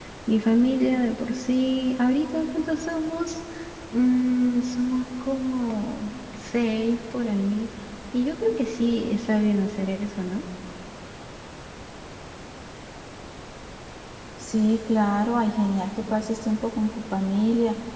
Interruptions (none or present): none